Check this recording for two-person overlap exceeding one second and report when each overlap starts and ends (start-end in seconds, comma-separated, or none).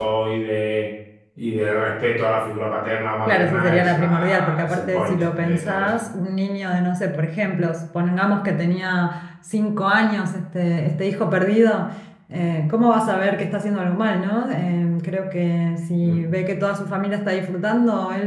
3.3-5.9